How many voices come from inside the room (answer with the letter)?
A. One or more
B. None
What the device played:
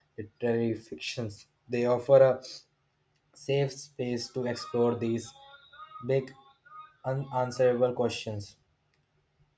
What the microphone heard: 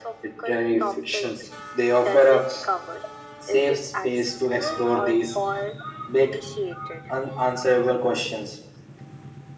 A